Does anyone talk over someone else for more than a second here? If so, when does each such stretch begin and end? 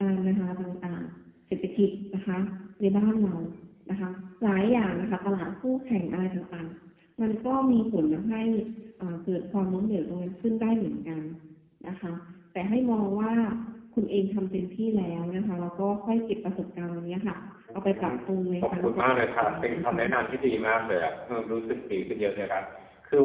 18.6-20.0

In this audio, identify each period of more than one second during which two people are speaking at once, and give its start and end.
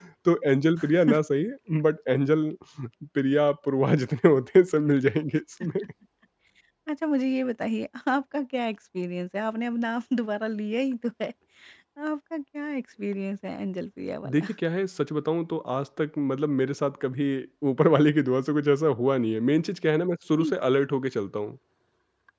none

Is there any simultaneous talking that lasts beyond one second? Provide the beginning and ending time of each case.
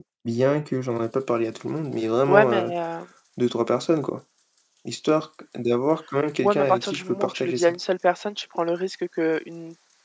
6.4-7.7

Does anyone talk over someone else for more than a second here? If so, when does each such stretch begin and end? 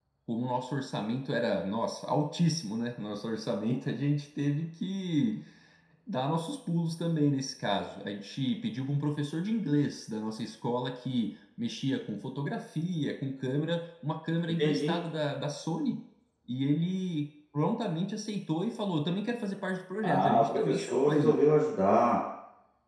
20.0-21.4

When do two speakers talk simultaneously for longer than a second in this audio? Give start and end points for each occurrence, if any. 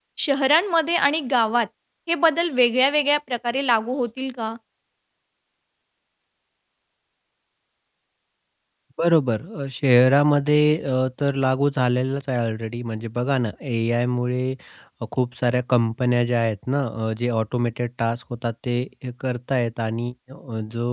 none

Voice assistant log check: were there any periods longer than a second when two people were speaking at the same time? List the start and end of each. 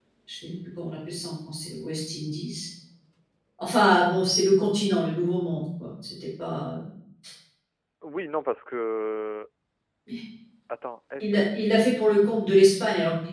none

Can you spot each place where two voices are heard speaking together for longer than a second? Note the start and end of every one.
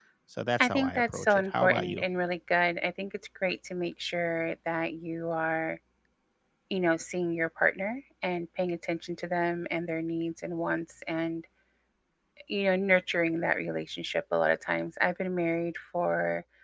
0.6-2.0

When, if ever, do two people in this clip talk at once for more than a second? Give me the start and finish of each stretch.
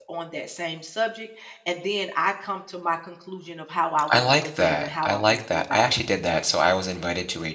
4.1-6.0

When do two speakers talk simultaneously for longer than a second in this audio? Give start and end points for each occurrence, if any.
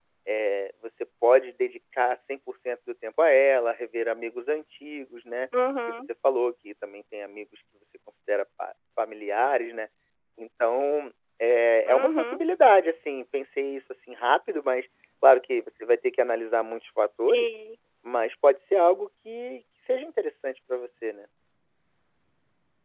none

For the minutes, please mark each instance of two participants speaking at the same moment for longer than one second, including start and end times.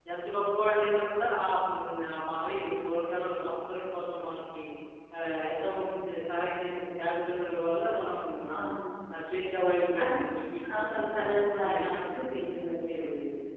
10.8-12.0

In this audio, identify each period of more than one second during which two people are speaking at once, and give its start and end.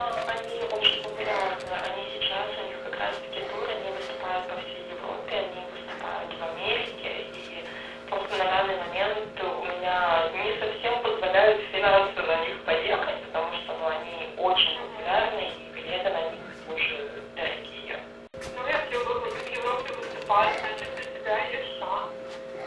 none

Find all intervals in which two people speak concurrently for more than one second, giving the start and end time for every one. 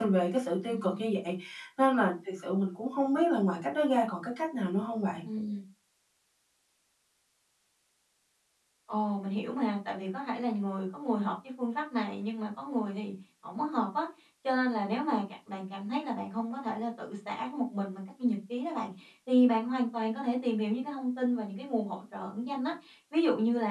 none

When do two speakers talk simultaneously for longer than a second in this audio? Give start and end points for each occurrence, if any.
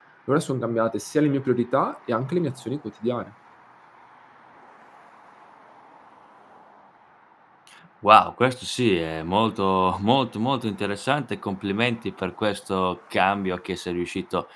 none

